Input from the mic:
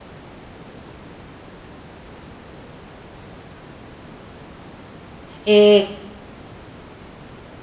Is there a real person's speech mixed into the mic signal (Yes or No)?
Yes